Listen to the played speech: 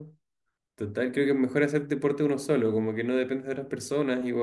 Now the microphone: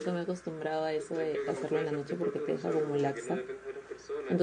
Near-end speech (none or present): present